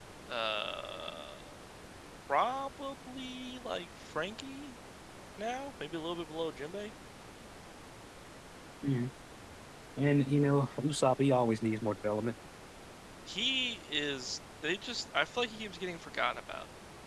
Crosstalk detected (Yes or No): No